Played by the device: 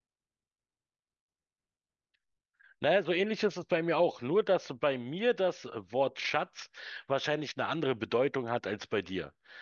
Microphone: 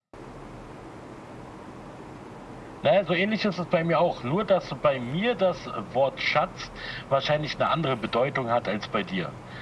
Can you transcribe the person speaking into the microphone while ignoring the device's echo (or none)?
none